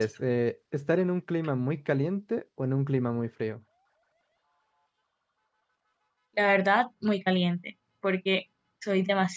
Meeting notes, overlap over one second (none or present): none